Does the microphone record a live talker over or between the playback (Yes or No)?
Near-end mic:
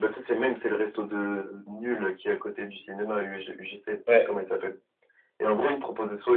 Yes